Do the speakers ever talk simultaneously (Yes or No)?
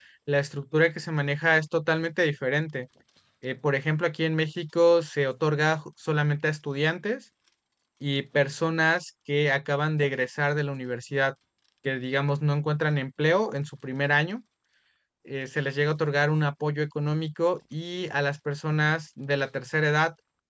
No